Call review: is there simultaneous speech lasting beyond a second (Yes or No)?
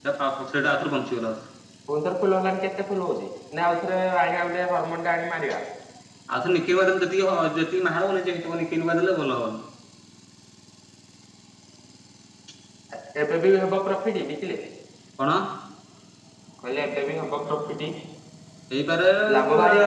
No